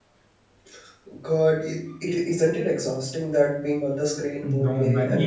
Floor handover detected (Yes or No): Yes